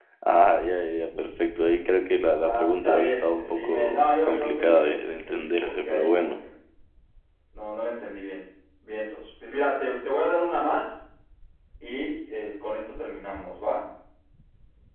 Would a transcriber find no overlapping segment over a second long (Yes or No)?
No